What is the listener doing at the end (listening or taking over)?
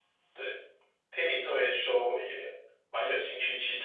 taking over